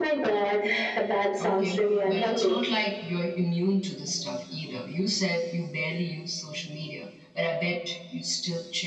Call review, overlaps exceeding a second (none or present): present